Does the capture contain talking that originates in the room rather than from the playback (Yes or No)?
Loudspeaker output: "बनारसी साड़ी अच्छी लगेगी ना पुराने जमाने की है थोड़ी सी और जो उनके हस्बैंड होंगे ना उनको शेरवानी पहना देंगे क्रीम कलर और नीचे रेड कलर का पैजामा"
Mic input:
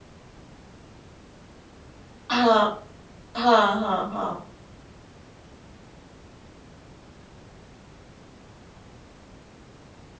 Yes